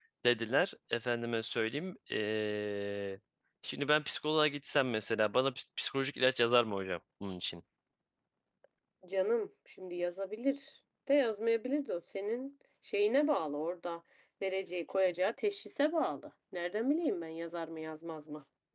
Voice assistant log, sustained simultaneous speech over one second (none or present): none